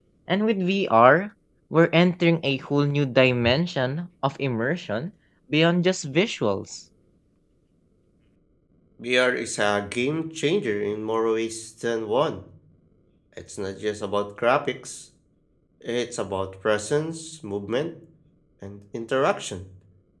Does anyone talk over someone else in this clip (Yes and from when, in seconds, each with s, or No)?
No